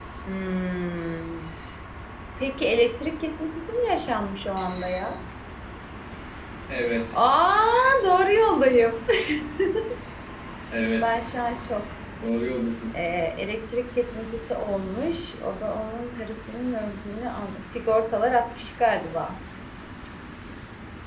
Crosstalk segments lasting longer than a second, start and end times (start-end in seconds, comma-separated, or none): none